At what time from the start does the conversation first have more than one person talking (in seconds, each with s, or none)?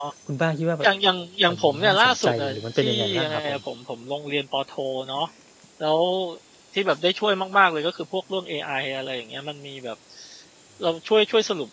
1.5 s